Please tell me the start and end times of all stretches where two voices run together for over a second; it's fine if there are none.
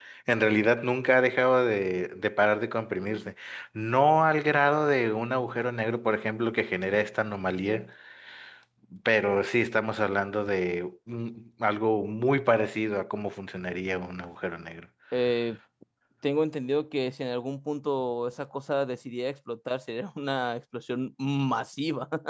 none

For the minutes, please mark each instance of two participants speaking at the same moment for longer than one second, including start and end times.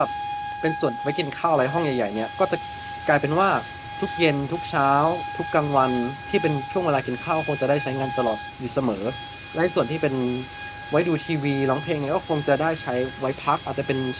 none

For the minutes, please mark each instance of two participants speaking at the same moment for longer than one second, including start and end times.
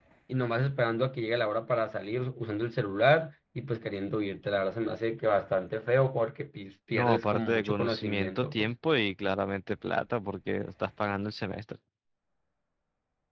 6.9-8.7

